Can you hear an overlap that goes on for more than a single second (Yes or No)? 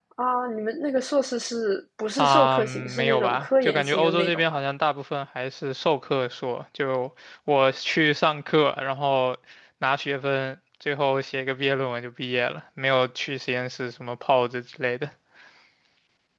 Yes